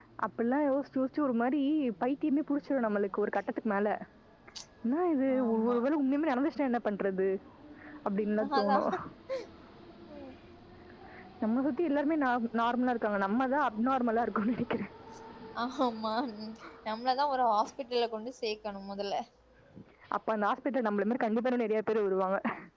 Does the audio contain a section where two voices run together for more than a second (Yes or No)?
No